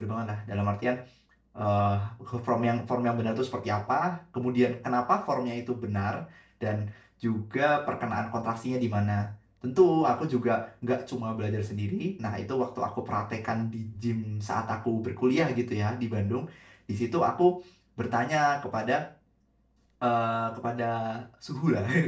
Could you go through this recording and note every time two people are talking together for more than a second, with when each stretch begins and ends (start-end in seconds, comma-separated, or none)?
none